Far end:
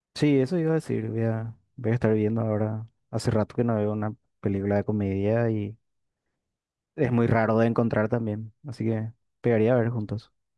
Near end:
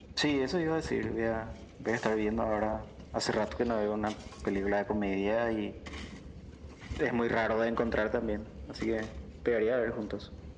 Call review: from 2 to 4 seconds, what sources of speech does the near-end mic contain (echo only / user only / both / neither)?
echo only